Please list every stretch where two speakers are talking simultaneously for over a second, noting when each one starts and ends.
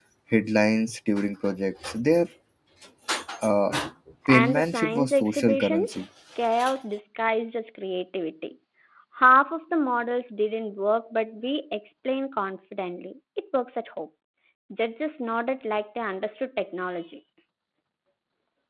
4.3-6.0

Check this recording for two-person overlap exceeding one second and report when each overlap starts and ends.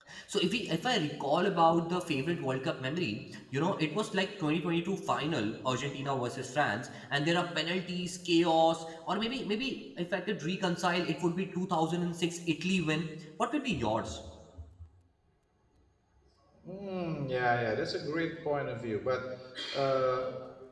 none

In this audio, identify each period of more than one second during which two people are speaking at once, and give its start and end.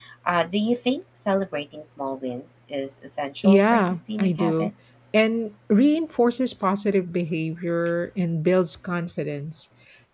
3.4-4.7

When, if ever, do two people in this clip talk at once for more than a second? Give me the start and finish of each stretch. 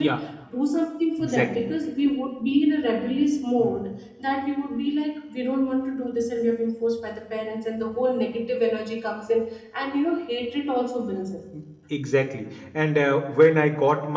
none

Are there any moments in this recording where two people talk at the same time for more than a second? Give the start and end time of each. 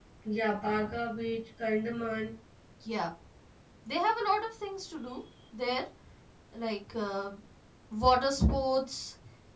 none

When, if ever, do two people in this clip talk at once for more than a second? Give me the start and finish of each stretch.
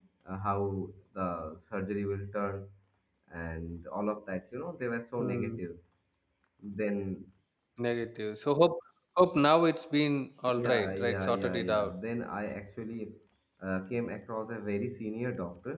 10.6-12.0

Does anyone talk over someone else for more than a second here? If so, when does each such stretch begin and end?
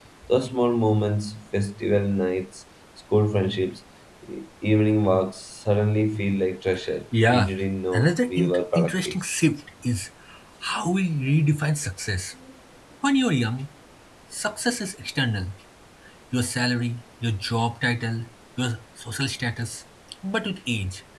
7.9-9.2

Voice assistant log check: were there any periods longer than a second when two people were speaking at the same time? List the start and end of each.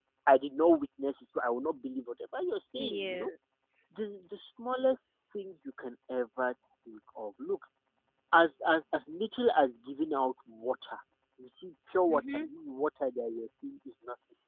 none

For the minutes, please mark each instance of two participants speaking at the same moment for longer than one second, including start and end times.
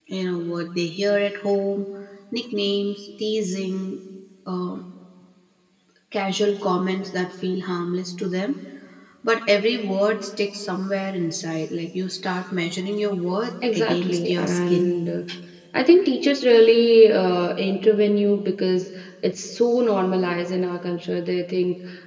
13.7-14.9

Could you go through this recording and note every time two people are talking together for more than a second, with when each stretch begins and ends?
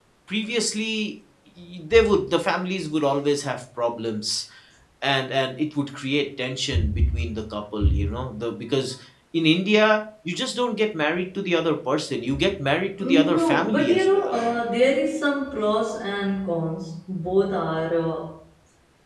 13.0-14.4

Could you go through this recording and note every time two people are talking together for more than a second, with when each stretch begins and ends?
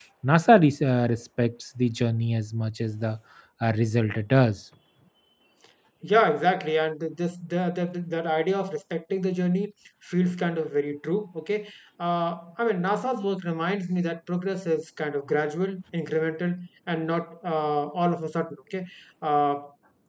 none

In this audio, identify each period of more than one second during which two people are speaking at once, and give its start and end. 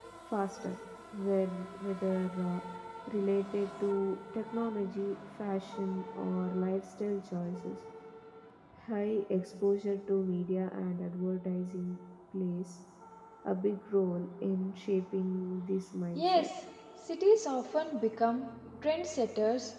none

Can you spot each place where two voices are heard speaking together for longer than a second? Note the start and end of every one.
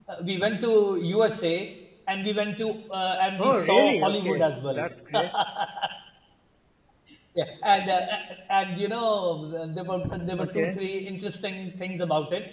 3.4-4.8

